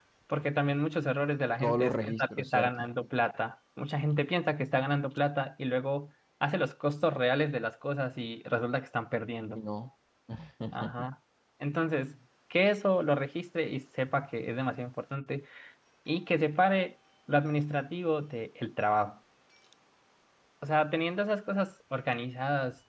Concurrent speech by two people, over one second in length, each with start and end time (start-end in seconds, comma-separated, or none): 1.6-2.9